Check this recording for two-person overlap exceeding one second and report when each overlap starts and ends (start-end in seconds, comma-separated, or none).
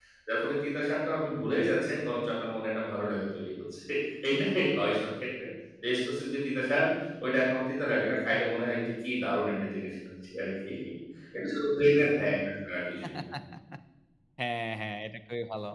none